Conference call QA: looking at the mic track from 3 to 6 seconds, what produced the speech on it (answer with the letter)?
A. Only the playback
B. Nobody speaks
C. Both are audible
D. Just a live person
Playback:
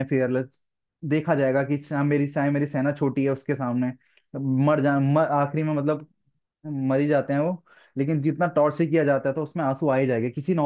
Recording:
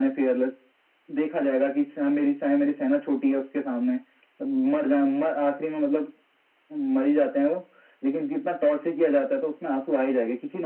A